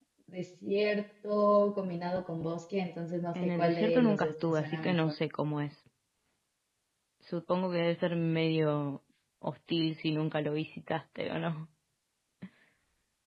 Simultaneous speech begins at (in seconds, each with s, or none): 3.3 s